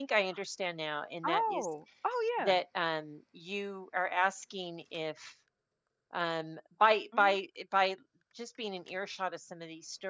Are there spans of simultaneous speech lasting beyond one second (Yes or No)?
No